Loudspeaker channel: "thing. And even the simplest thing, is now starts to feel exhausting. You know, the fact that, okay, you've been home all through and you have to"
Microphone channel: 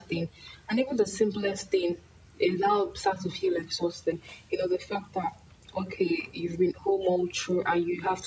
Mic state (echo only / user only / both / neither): echo only